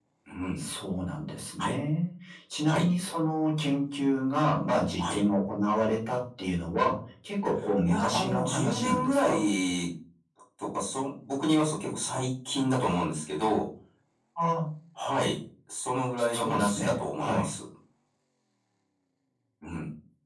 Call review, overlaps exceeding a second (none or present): present